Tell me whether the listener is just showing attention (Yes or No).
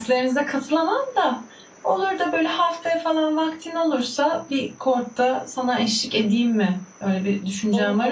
No